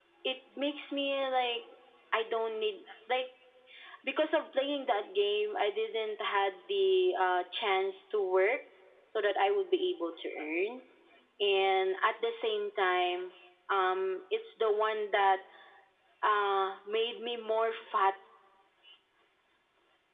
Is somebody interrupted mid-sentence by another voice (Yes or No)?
No